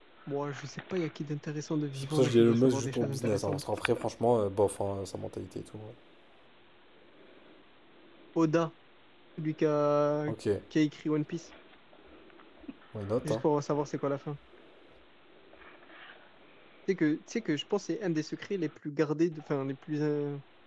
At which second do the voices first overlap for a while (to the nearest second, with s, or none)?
2 s